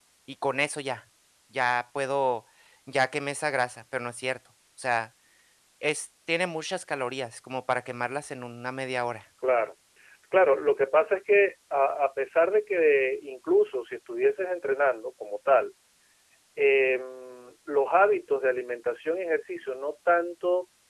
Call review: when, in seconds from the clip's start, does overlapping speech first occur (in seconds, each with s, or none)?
none